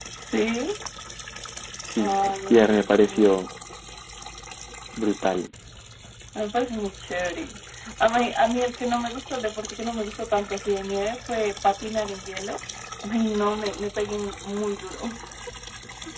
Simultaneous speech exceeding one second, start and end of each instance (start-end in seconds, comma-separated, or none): 2.0-3.3